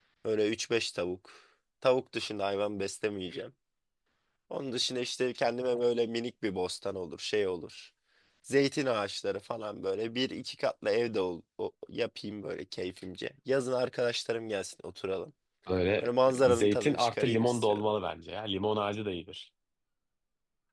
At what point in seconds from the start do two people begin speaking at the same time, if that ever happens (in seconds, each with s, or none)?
16.5 s